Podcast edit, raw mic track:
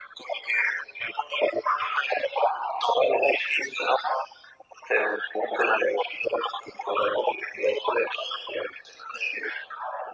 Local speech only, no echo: none

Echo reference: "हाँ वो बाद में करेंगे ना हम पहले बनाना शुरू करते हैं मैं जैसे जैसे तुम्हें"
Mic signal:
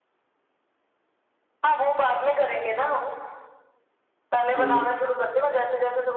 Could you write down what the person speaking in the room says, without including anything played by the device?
हम्म

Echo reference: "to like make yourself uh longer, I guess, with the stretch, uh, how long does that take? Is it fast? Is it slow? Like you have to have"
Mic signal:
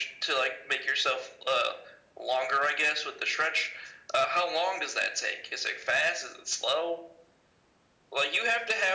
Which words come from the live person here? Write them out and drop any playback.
none

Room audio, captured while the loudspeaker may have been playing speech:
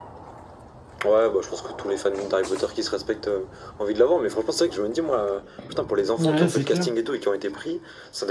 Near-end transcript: Ouais, c'est clair.

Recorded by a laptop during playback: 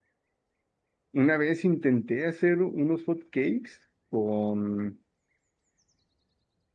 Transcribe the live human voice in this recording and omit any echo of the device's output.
una vez intenté hacer unos hot cakes con,

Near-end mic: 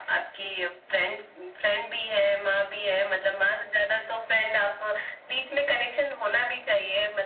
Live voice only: none

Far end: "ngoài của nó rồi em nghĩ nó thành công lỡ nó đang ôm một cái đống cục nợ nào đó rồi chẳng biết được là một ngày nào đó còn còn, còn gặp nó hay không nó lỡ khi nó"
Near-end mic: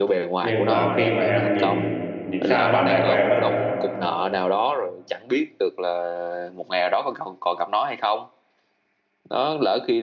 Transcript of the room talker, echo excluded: nhưng mà khi mà em nhìn nhìn sang bạn bè của em á

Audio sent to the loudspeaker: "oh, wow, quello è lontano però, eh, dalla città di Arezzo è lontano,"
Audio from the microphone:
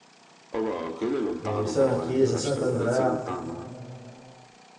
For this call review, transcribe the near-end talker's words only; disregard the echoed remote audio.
Eh, c'era una chiesa, Sant'Andrea,

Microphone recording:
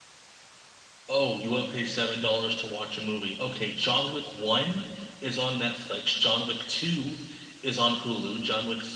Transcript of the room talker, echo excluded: none

